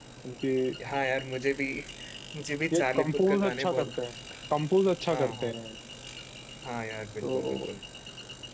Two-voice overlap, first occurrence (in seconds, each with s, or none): 2.7 s